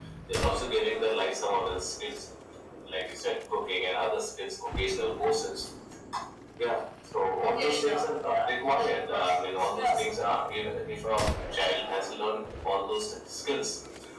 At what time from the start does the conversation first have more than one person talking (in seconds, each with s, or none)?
7.4 s